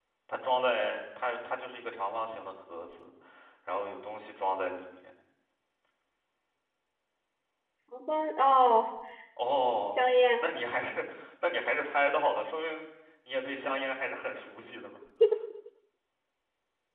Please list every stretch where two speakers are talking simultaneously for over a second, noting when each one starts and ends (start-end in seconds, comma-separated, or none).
none